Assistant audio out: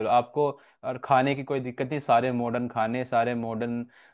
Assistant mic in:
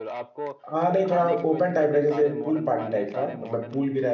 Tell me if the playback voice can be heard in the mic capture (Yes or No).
Yes